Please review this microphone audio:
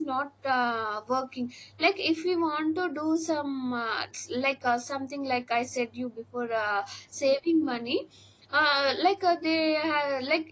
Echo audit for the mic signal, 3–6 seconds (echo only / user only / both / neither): user only